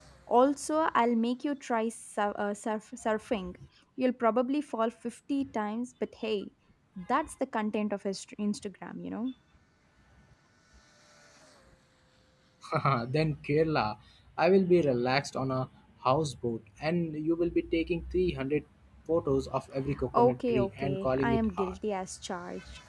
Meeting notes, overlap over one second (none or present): present